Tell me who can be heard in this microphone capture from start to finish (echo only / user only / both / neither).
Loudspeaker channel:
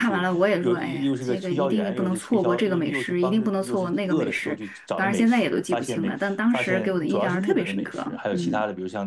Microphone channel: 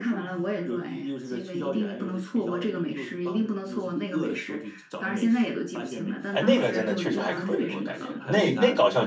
both